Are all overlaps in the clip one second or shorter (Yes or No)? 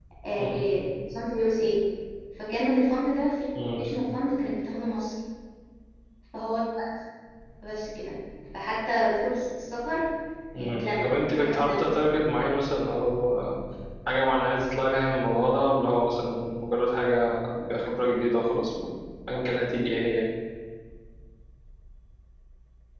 No